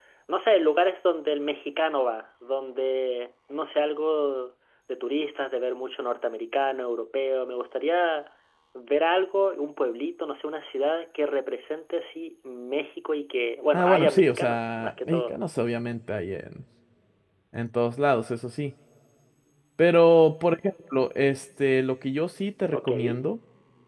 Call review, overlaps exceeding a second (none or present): present